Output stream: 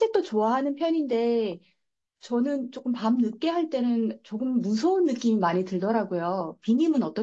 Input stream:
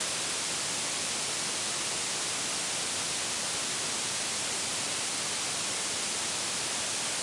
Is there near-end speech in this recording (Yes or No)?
No